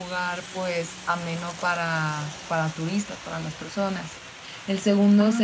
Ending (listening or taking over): listening